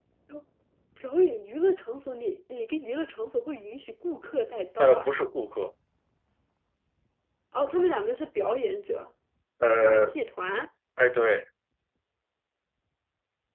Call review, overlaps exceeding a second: none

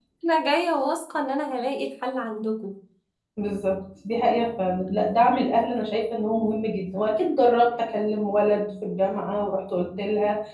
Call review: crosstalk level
none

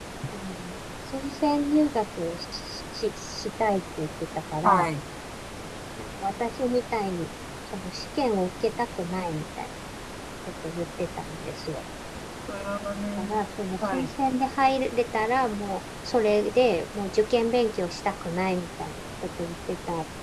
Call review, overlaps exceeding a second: none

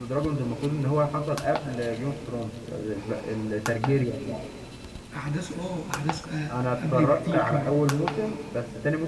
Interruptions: present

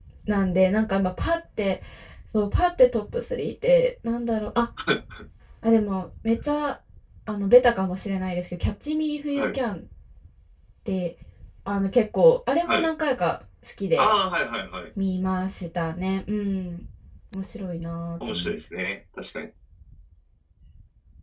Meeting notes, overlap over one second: none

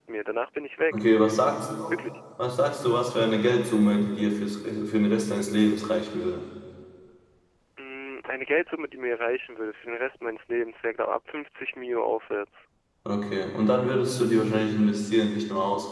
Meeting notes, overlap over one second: none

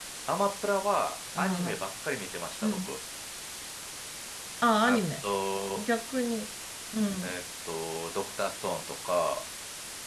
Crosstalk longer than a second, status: none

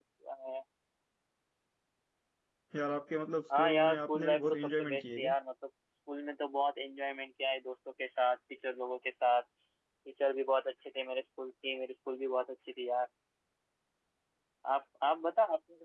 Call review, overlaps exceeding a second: present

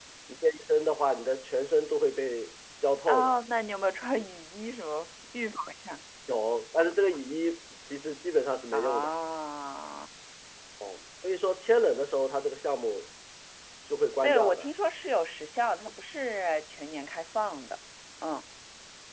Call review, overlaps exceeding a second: none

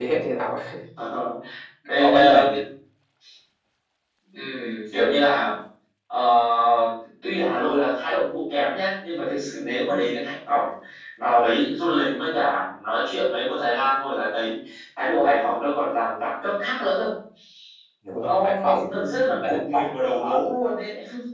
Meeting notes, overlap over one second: present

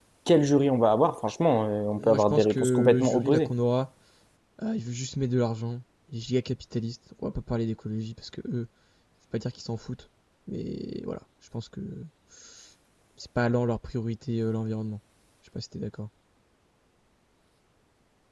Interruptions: present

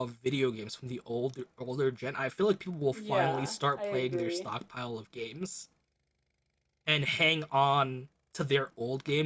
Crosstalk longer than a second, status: present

